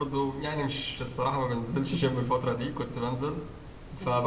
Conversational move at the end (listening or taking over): listening